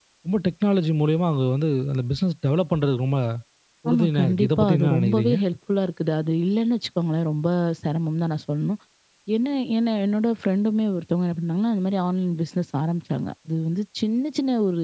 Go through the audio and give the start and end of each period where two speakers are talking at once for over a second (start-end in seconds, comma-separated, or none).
3.9-5.4